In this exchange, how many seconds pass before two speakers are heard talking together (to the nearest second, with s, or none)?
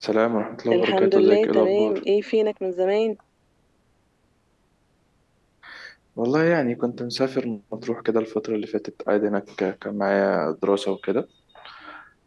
1 s